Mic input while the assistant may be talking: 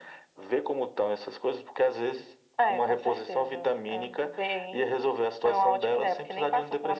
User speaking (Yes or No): No